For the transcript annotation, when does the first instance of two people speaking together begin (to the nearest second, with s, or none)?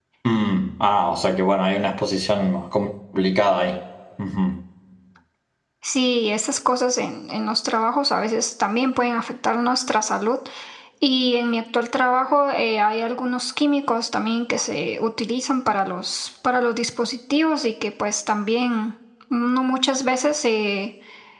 none